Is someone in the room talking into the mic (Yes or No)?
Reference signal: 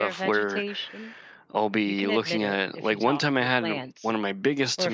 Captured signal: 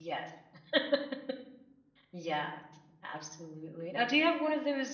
Yes